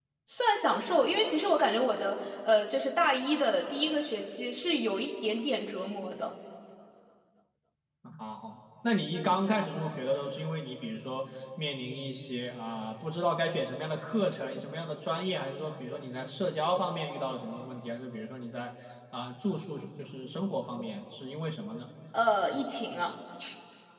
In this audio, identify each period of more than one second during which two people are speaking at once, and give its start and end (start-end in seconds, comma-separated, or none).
none